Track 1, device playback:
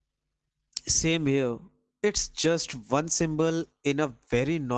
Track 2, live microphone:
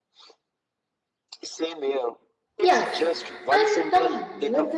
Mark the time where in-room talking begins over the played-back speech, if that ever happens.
2.6 s

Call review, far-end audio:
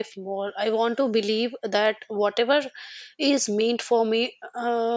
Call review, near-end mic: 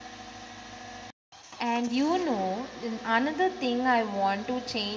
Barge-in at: 1.6 s

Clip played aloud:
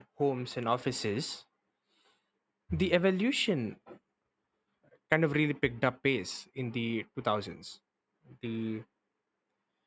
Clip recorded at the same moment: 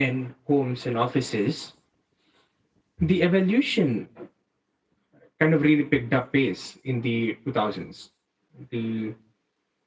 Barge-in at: none

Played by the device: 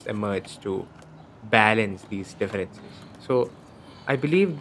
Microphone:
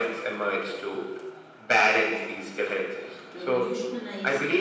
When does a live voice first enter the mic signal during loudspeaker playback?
3.3 s

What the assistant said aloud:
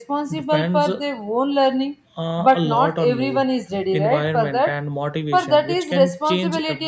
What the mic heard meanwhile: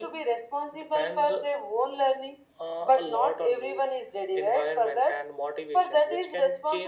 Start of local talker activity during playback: none

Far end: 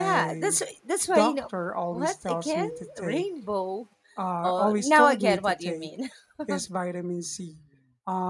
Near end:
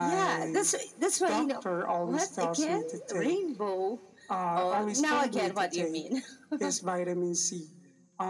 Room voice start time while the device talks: none

